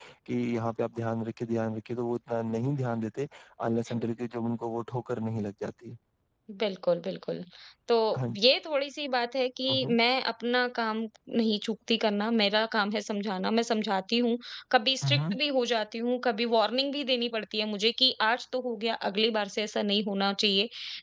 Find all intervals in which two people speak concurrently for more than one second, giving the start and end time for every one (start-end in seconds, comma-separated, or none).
none